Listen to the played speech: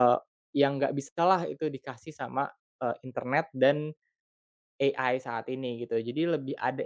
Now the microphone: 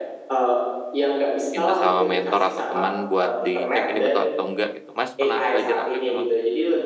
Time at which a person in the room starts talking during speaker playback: 1.6 s

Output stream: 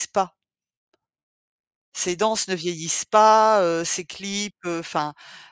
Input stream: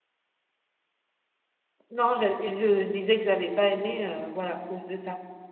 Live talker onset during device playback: 1.9 s

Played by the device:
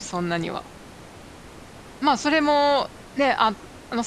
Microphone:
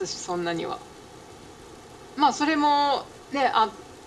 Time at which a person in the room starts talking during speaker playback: none

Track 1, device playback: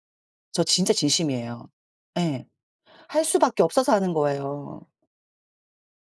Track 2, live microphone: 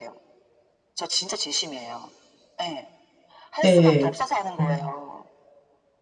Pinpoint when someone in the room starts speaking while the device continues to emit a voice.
3.6 s

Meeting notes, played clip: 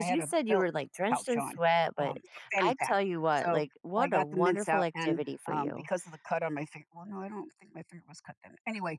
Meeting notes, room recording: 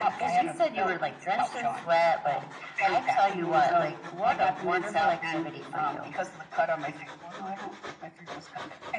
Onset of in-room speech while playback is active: 3.3 s

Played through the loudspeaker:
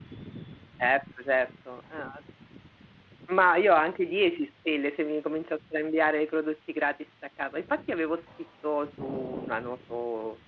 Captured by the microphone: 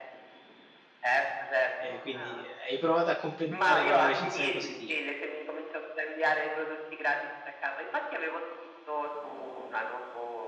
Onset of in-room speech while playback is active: 1.8 s

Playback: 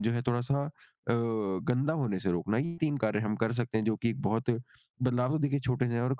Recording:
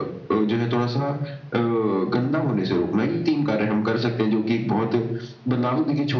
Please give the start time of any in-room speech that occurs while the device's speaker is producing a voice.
none

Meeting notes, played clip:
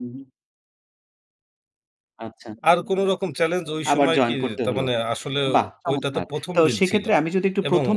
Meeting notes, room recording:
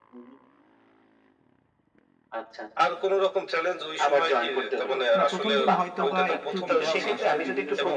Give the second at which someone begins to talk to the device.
5.2 s

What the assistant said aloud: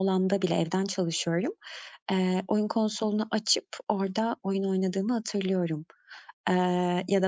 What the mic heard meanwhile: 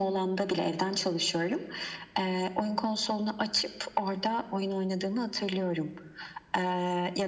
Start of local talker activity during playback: none

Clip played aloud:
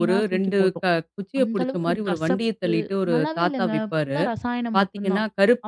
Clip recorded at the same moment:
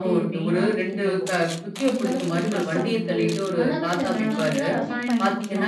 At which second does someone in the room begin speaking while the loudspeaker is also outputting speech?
2.4 s

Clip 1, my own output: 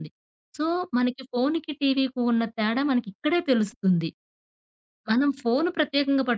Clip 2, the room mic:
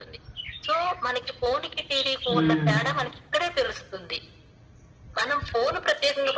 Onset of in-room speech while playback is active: 2.3 s

